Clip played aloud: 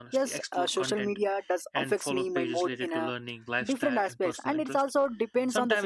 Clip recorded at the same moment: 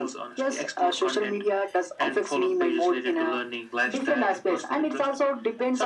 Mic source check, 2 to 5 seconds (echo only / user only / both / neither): echo only